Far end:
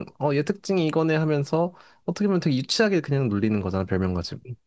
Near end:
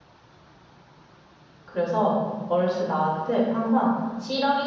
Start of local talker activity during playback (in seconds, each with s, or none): 1.6 s